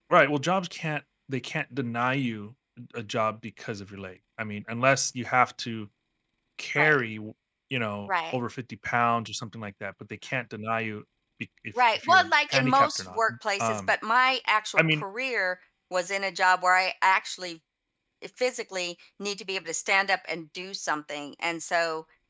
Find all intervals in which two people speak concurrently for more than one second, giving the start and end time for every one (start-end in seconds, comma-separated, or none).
11.9-13.2